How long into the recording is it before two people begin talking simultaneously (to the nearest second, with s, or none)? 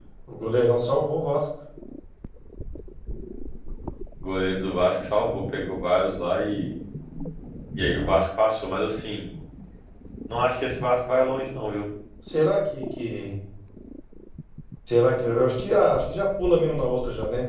none